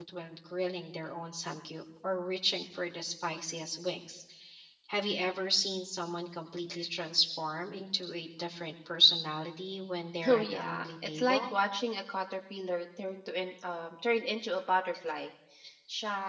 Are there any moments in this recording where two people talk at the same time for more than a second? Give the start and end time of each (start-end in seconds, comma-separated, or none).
10.2-11.5